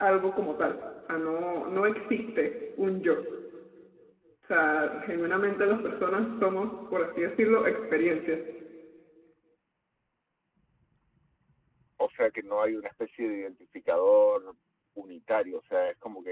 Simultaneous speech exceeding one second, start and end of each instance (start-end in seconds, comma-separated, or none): none